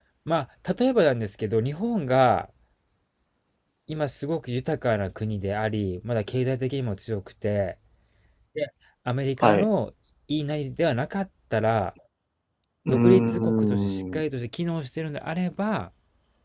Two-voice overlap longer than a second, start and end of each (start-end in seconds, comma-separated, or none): 12.9-14.2